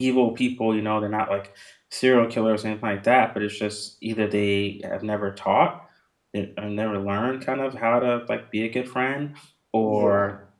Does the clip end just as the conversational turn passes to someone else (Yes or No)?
No